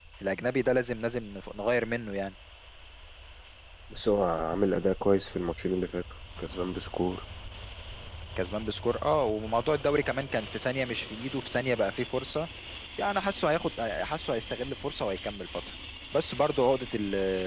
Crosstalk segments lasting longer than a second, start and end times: none

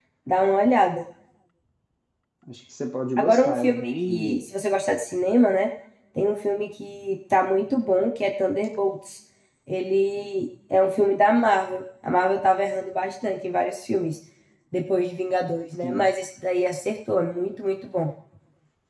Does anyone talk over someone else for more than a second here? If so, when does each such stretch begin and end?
3.2-4.4

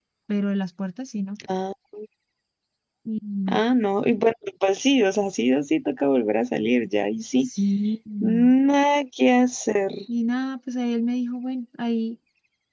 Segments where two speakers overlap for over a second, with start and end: none

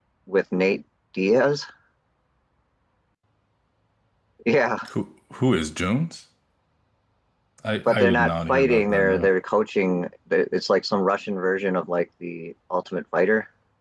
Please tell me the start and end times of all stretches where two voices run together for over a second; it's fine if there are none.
7.8-9.3

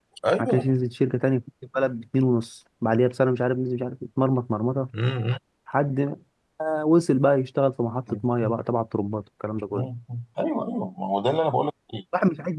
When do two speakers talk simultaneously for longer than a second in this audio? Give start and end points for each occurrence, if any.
none

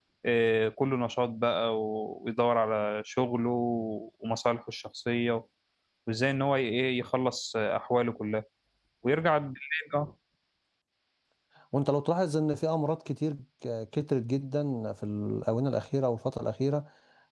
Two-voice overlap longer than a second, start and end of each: none

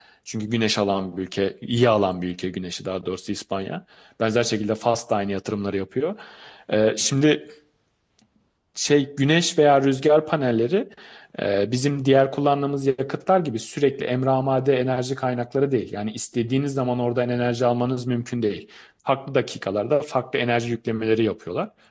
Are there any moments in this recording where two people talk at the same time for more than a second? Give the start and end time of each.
none

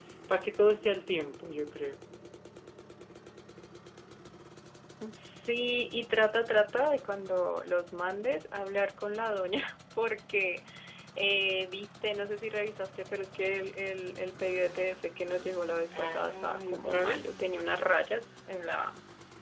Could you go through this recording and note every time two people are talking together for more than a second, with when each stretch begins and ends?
15.9-17.2

